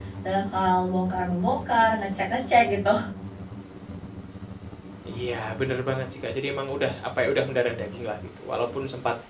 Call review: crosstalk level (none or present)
none